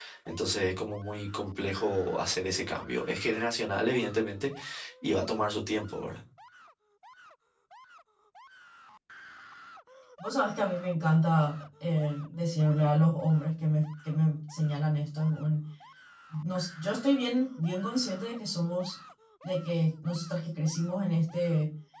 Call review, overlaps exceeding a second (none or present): none